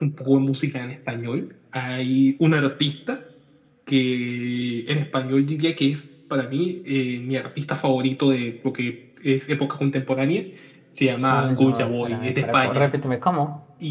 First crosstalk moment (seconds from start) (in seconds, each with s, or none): 11.3 s